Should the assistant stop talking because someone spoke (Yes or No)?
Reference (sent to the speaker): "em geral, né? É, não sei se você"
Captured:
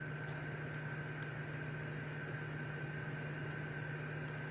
No